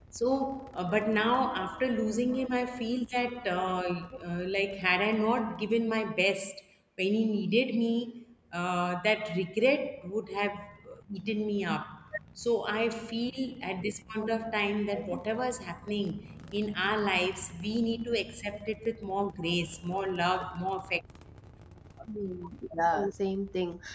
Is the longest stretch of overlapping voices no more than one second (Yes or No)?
Yes